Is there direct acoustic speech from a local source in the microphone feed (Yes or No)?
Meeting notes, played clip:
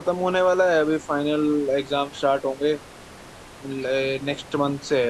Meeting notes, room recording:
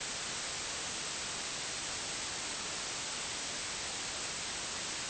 No